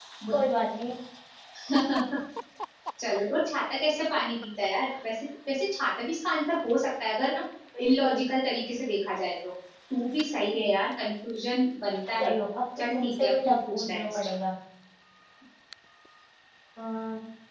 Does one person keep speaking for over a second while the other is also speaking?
Yes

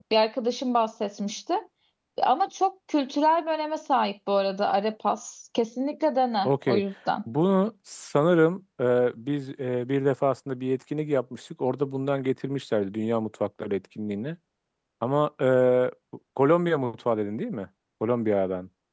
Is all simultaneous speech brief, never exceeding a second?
Yes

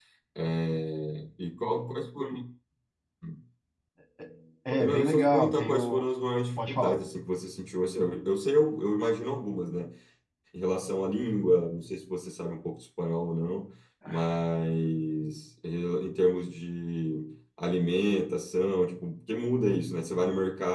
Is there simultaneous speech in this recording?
Yes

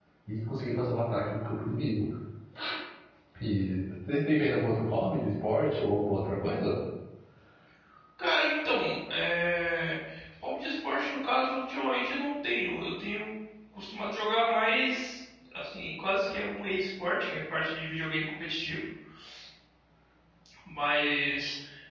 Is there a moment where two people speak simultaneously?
No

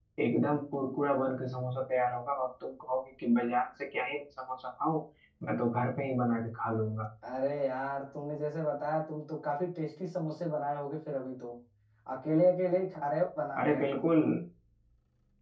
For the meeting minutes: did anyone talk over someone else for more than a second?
No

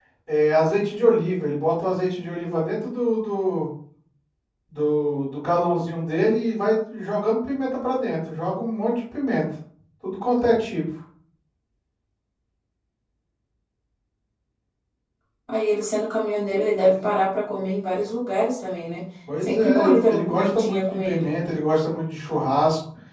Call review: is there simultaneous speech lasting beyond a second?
Yes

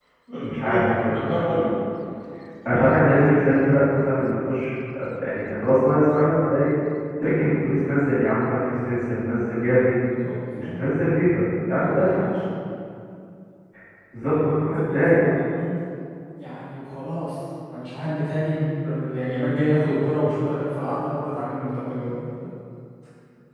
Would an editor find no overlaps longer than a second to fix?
No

